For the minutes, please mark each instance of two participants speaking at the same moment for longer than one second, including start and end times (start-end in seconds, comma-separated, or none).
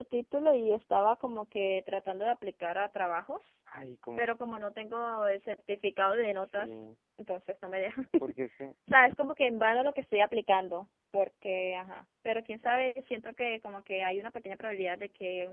none